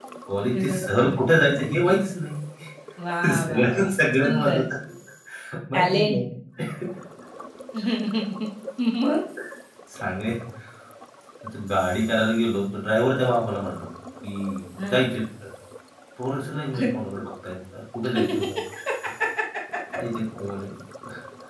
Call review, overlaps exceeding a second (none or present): present